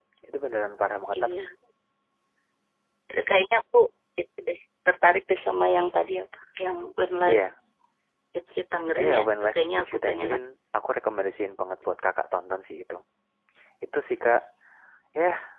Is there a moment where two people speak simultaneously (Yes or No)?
Yes